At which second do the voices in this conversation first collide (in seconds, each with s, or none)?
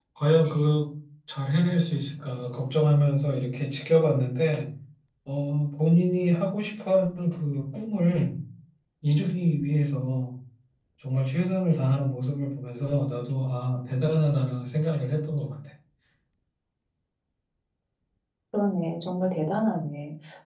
none